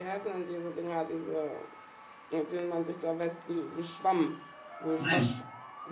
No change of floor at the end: No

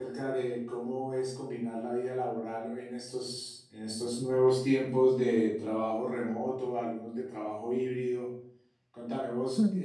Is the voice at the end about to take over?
No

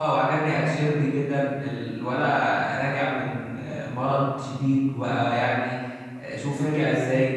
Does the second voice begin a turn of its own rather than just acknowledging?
No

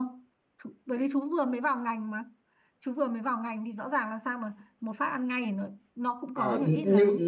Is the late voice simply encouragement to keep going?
No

